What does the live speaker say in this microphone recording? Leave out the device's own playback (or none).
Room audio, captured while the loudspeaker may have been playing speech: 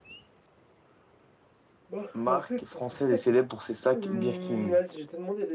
Marque française est célèbre pour ses sacs Birkin.